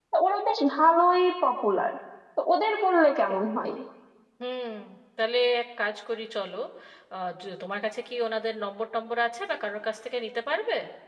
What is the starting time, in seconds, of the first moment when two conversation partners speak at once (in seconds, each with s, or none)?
none